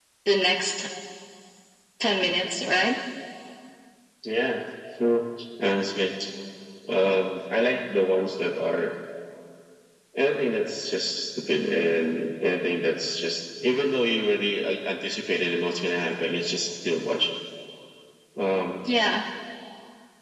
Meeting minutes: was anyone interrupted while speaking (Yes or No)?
No